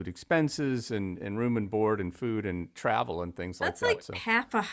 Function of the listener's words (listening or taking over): taking over